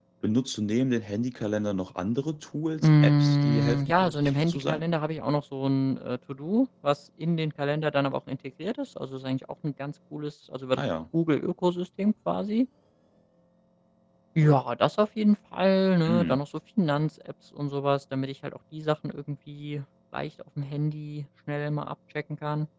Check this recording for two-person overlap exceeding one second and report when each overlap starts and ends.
2.8-4.8

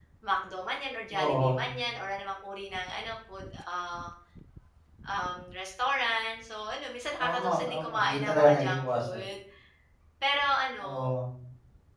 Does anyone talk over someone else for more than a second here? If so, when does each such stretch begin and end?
7.2-9.2

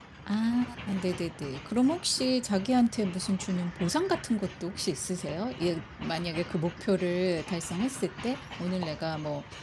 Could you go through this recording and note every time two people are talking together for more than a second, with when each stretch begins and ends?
none

